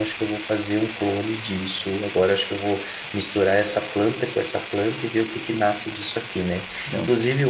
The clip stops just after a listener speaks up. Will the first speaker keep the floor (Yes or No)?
Yes